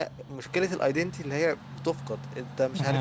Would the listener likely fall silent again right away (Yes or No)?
No